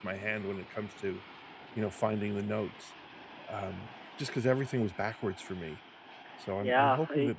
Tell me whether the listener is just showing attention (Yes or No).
No